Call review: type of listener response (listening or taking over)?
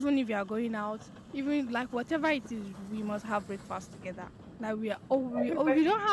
listening